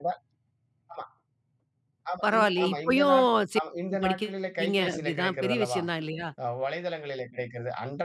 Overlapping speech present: Yes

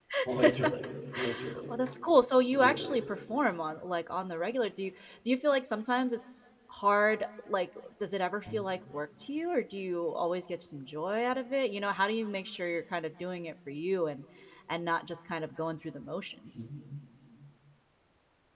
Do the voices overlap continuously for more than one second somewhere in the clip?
No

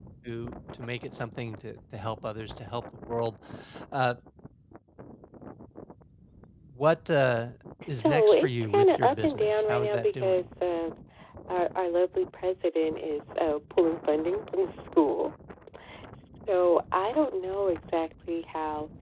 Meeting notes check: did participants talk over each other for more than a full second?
Yes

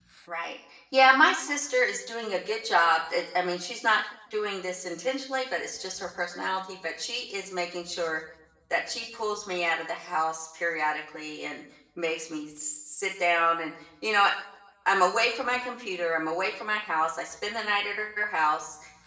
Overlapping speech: No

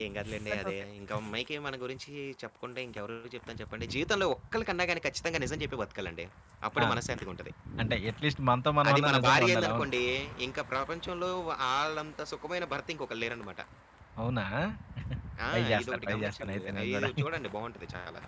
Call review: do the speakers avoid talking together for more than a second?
No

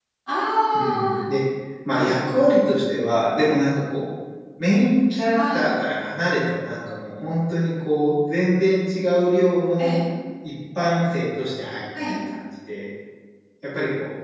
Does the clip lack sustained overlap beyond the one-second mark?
Yes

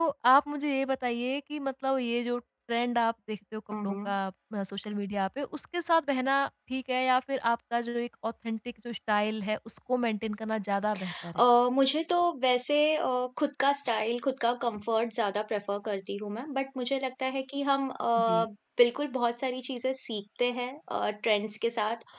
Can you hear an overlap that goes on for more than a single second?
No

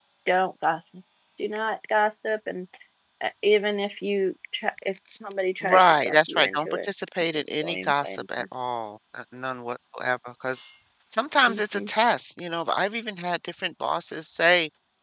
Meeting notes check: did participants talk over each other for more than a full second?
Yes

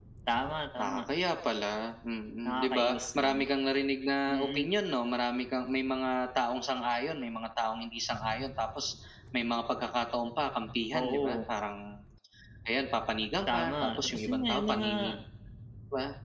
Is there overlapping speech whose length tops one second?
Yes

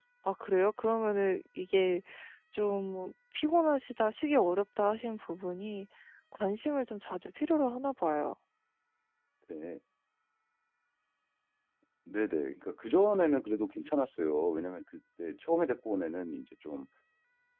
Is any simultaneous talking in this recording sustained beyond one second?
No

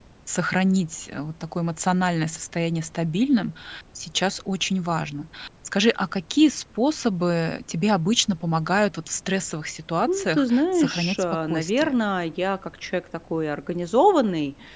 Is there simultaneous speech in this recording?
Yes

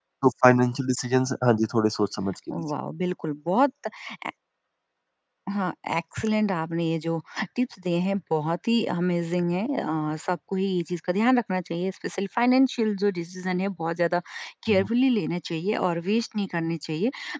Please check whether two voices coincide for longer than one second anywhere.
No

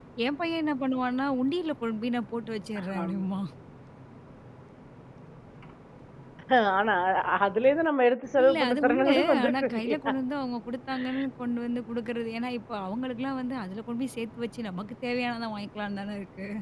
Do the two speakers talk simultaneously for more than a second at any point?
Yes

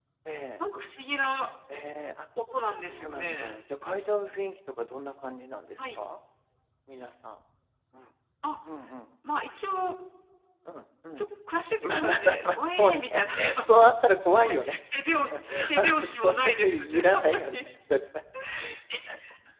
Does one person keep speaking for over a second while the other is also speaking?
Yes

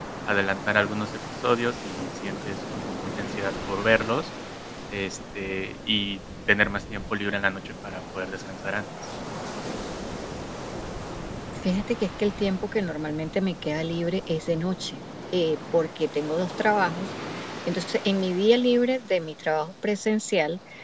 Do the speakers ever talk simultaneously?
No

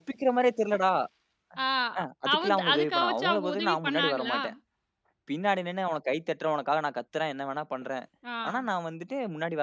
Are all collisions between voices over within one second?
No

